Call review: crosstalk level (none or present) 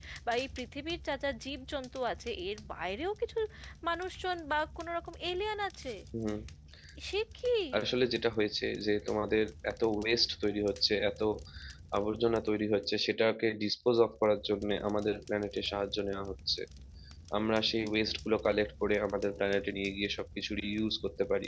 none